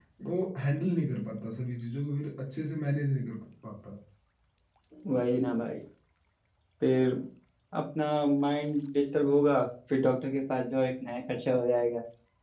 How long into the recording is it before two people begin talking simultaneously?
none

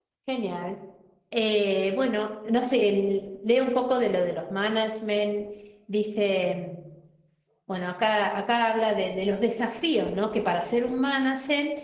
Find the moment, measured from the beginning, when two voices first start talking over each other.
none

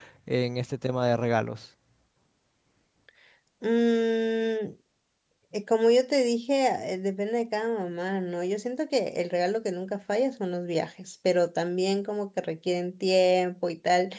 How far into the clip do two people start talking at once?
none

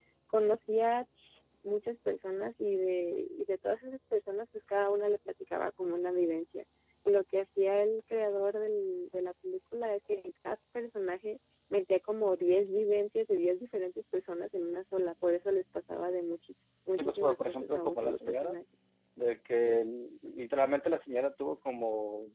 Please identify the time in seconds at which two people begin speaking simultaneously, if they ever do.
17.0 s

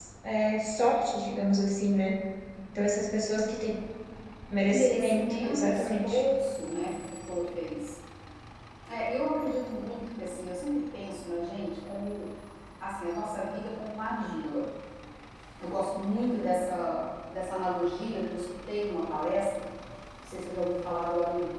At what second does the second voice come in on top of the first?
4.7 s

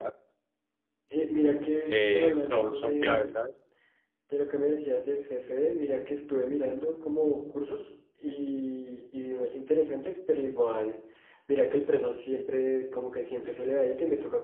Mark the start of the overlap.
1.9 s

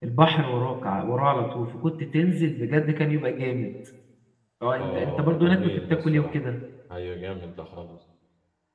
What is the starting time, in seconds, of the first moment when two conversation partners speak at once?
4.8 s

